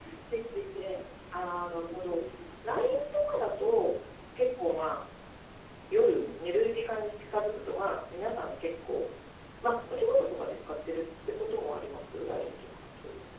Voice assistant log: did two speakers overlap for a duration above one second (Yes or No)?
No